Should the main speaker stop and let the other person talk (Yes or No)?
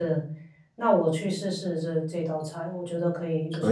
Yes